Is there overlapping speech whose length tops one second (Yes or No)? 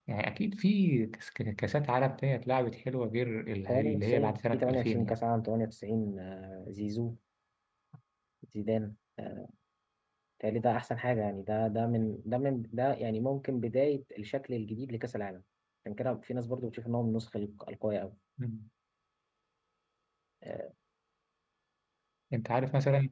Yes